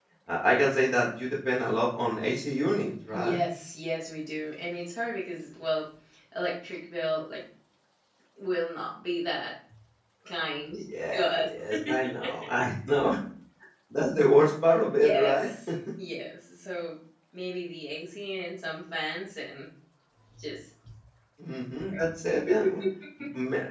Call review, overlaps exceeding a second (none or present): none